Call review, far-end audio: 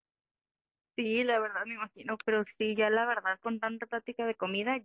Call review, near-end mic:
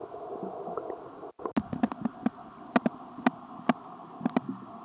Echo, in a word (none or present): none